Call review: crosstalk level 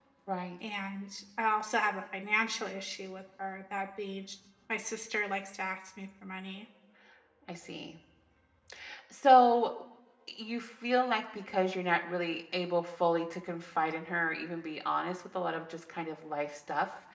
none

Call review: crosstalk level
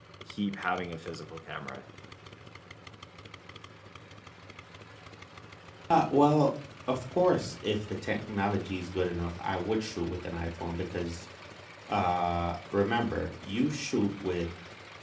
none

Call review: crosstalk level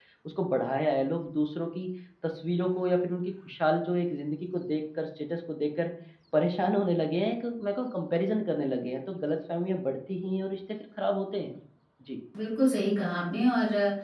none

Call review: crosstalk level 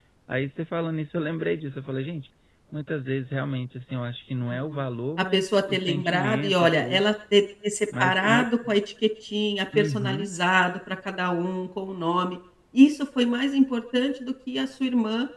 present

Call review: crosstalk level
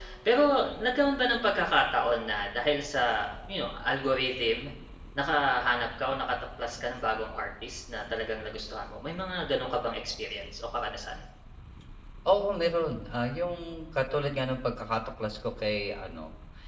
none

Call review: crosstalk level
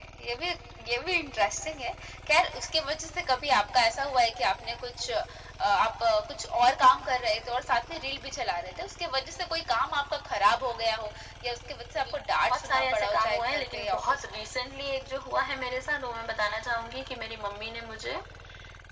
present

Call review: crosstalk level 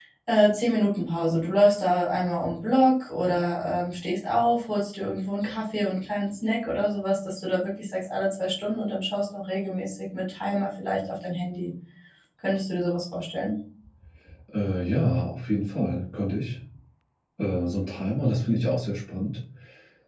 none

